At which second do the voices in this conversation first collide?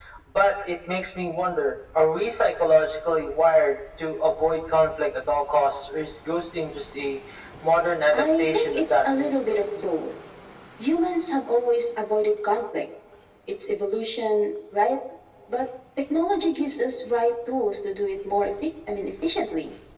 8.1 s

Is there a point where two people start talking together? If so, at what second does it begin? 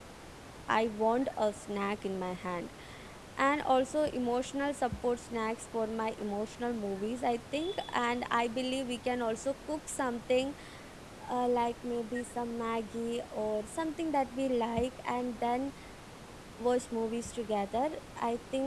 none

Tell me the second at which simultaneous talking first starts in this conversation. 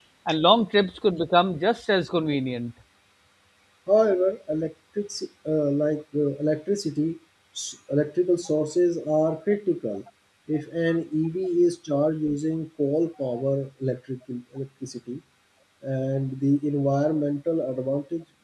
none

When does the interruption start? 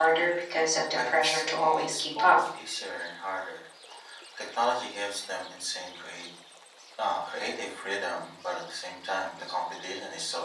1.0 s

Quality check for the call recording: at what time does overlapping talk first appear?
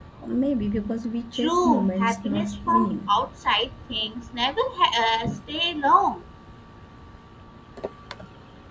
1.3 s

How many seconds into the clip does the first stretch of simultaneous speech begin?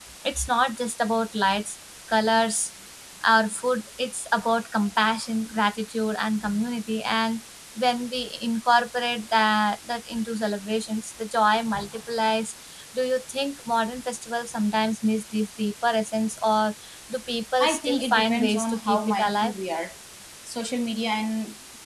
17.6 s

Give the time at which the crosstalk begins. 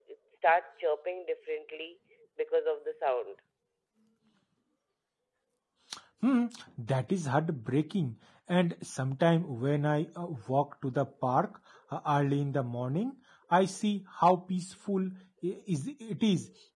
none

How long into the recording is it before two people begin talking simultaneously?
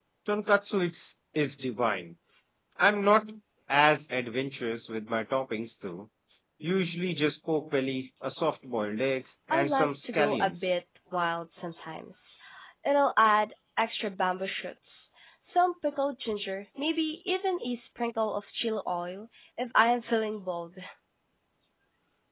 9.5 s

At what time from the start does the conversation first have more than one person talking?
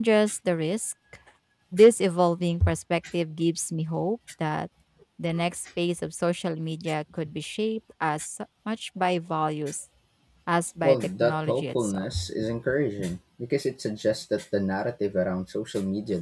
10.8 s

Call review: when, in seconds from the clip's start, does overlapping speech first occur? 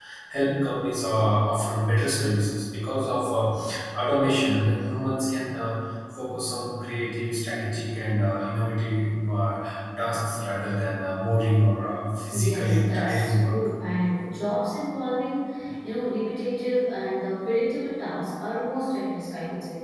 12.3 s

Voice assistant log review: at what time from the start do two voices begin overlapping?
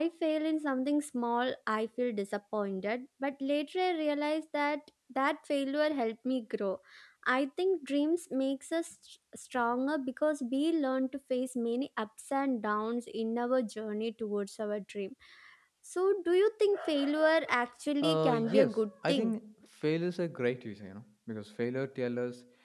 18.0 s

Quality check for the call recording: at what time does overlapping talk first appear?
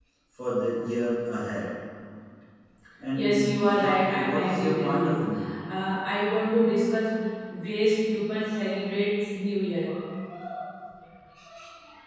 3.2 s

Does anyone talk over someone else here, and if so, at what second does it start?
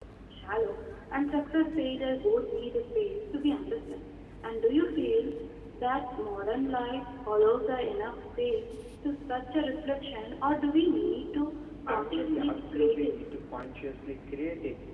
11.9 s

